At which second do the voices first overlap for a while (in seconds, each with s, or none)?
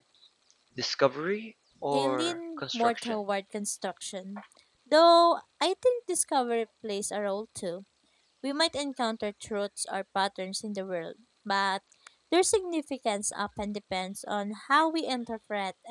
1.9 s